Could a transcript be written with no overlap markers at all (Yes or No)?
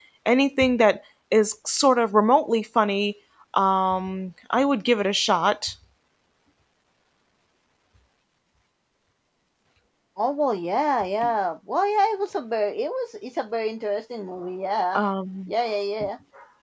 Yes